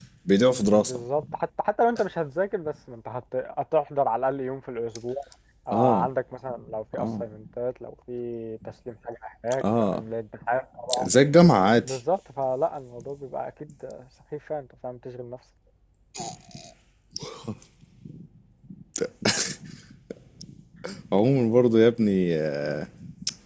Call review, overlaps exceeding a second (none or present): none